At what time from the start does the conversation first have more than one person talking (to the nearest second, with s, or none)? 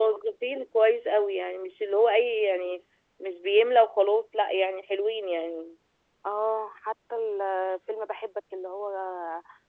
none